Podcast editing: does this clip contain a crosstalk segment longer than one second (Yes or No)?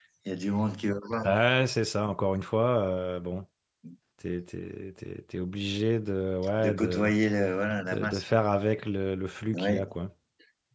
No